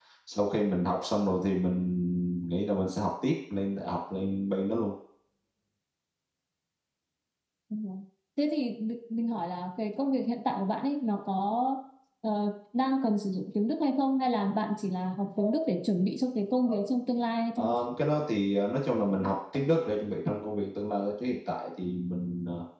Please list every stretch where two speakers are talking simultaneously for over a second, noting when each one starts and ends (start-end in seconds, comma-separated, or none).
none